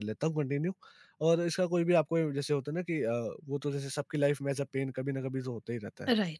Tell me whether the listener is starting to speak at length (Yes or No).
No